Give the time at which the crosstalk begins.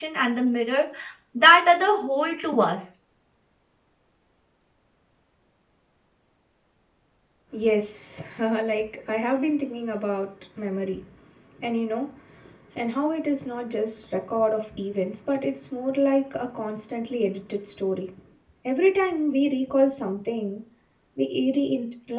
none

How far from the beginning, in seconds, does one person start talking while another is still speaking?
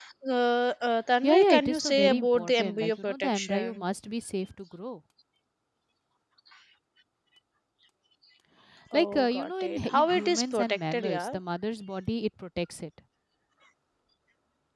1.2 s

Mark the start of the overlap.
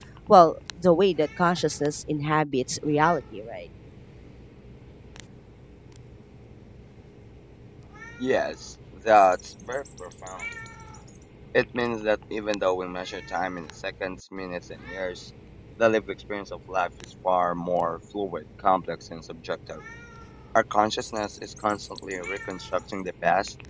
none

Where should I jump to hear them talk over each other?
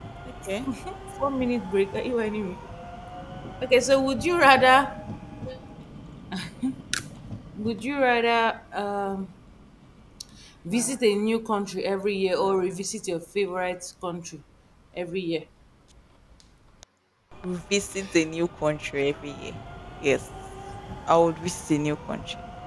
none

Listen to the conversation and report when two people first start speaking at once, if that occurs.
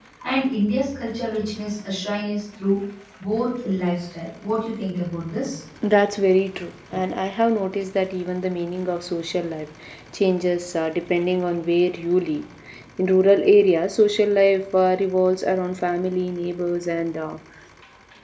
none

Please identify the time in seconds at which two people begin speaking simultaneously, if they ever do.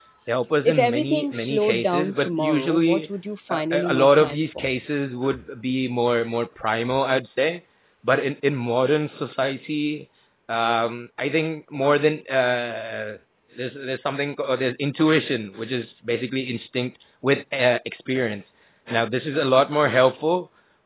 0.6 s

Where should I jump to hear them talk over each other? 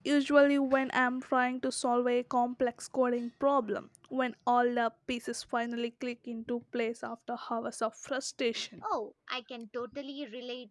none

